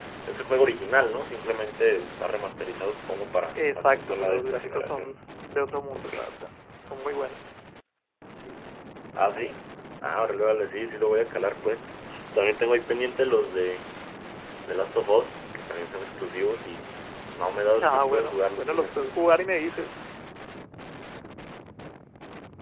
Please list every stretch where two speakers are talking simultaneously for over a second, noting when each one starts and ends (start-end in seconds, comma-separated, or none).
3.5-5.1, 17.8-19.1